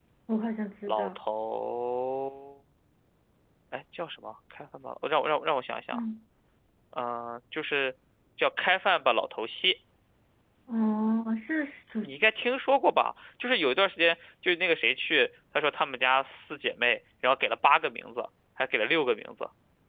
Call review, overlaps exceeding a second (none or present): none